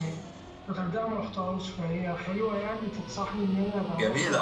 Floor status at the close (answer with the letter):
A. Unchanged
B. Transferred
B